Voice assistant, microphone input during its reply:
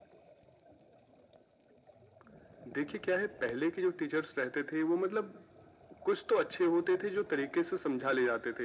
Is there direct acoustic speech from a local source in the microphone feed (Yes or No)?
No